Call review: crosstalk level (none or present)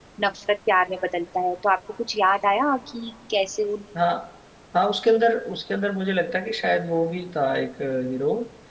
none